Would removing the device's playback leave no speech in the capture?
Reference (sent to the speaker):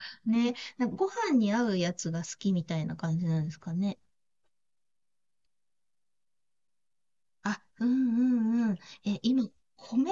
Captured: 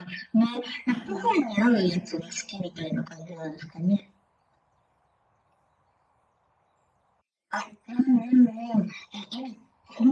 No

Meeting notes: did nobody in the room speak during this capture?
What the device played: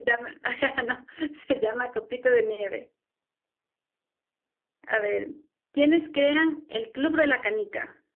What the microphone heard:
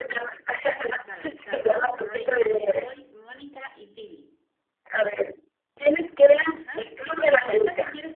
No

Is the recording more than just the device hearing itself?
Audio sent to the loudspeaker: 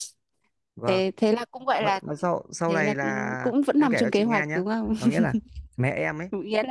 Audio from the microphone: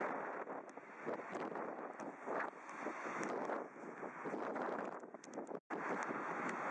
No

